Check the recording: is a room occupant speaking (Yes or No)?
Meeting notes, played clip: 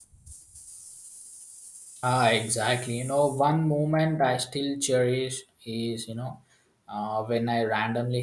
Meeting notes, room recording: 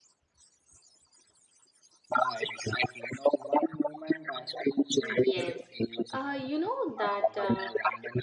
Yes